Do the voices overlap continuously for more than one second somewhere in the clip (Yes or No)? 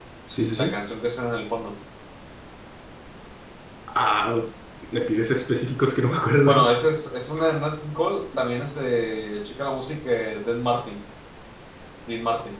No